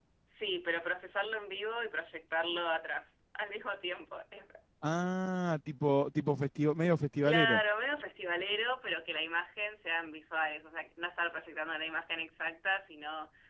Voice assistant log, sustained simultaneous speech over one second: none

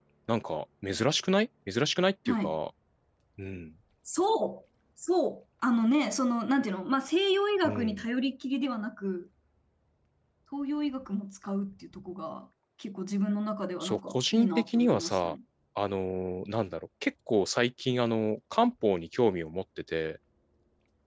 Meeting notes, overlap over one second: present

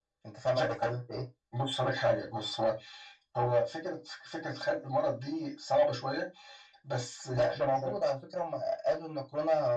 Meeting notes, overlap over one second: none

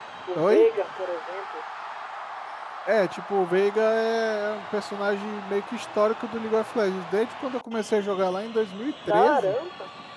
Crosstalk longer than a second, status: none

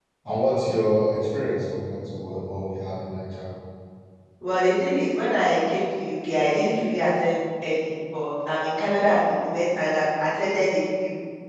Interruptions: none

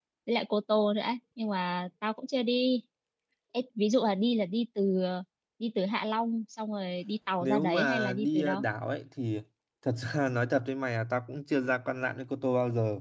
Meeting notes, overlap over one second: present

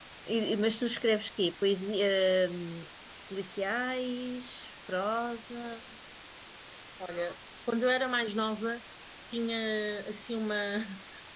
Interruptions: none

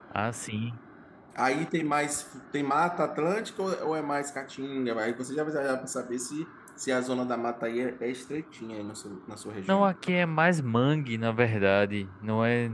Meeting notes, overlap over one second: none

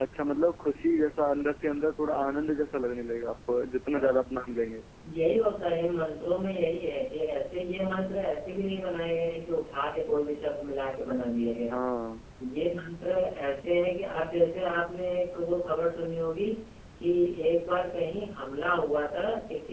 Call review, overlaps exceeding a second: none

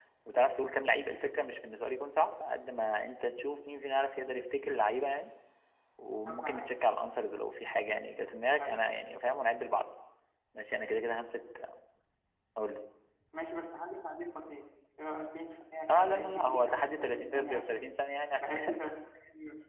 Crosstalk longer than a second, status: present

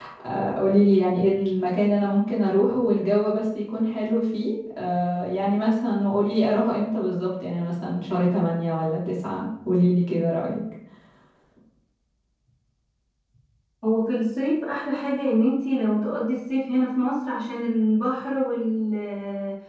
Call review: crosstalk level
none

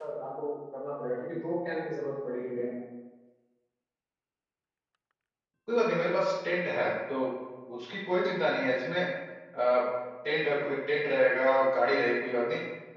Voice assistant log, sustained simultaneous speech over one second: none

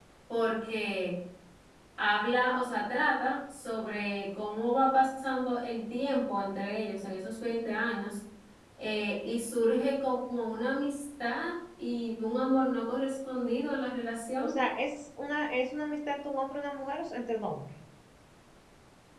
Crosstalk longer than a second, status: none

